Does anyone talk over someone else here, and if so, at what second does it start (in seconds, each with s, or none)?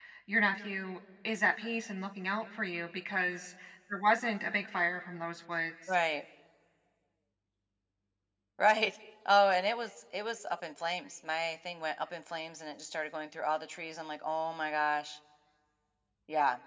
none